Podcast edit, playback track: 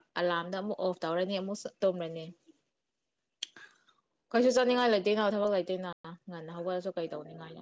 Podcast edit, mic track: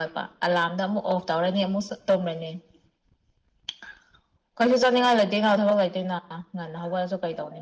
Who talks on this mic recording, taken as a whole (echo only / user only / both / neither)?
echo only